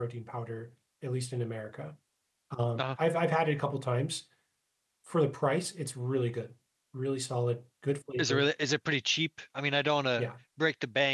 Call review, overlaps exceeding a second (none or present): none